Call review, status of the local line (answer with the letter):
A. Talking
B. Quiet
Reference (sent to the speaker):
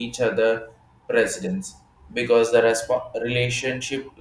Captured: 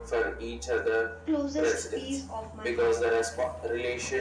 A